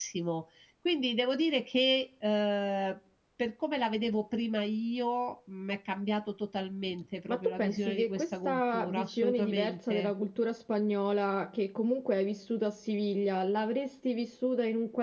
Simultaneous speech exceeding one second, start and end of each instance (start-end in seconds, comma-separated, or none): 7.3-10.1